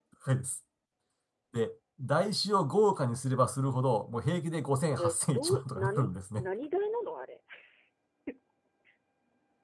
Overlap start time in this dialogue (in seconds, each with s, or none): 4.9 s